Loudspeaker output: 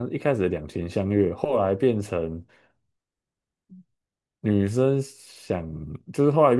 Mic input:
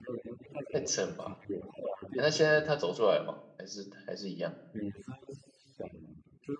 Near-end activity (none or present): present